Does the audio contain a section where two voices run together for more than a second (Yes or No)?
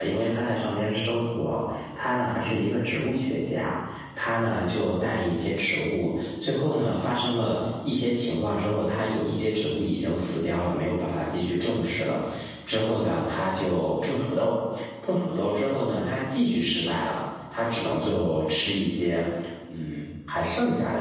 No